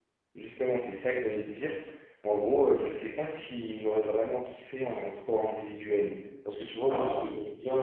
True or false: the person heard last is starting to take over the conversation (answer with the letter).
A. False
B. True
A